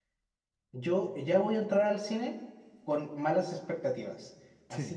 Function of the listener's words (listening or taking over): listening